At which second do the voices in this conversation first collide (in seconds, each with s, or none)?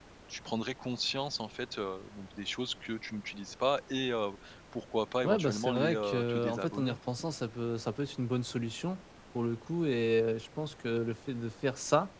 5.2 s